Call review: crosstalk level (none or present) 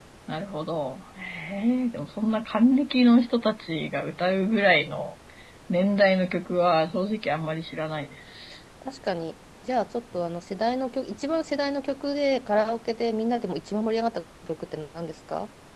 none